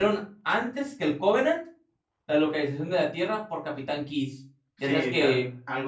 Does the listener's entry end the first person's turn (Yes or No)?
Yes